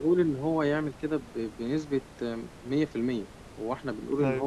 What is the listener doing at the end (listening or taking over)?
listening